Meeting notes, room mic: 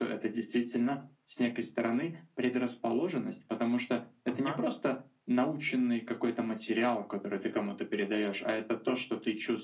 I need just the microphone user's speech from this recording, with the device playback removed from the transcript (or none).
Ага,